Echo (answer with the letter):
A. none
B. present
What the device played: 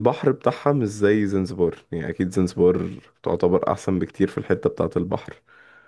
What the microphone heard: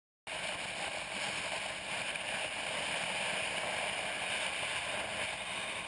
A